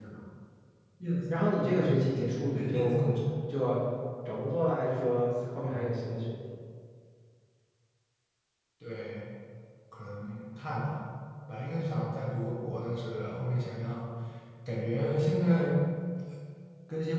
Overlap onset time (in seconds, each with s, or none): 1.3 s